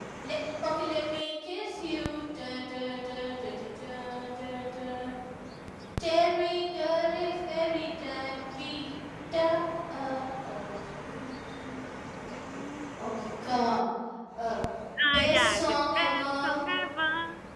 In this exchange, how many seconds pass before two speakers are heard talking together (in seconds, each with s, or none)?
15.1 s